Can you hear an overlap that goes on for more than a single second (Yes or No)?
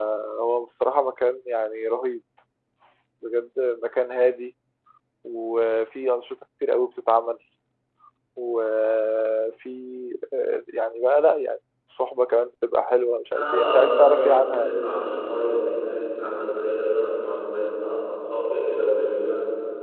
Yes